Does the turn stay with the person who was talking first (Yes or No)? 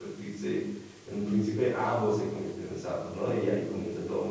Yes